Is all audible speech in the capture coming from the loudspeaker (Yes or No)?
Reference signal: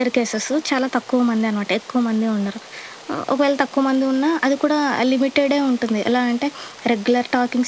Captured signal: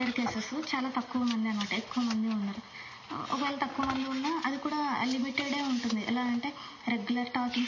Yes